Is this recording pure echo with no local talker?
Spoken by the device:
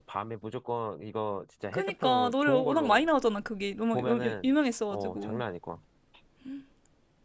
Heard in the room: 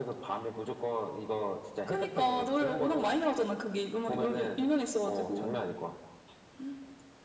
Yes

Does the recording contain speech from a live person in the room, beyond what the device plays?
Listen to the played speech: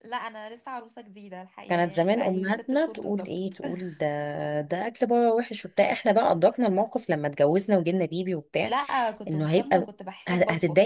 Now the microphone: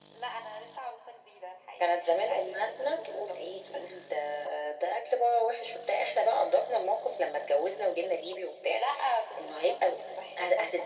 No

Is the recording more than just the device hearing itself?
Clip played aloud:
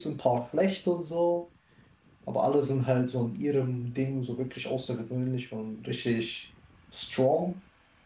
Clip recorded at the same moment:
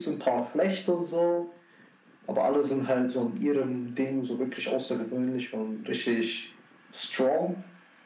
No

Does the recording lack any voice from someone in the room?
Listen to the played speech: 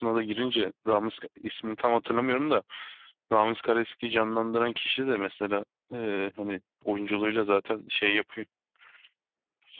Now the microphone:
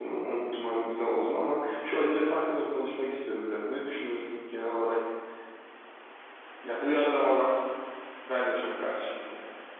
No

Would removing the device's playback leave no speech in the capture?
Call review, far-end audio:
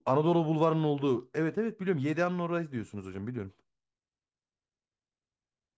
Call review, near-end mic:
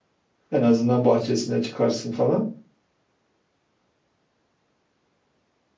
No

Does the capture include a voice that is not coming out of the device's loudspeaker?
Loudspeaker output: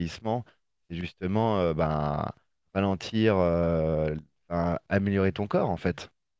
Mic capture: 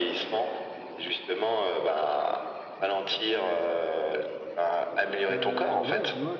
Yes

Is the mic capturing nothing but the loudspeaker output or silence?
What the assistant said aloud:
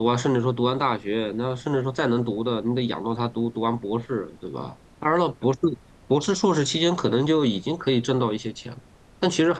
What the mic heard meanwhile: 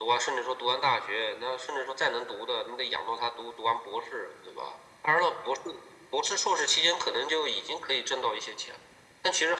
Yes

